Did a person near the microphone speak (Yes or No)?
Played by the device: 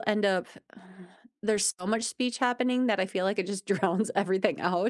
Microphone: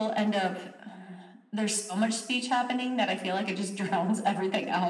No